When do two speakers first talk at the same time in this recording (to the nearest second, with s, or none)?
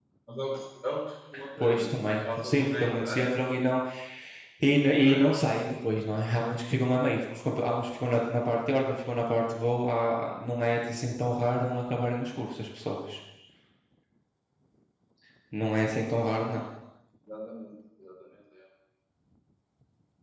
2 s